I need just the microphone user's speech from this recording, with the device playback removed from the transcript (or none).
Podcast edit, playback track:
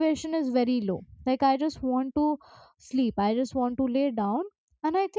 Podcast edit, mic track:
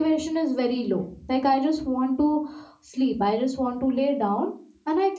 none